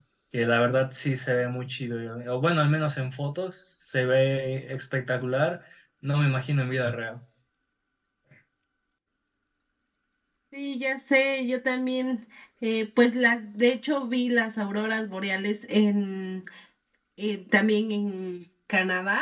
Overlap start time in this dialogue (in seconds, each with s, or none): none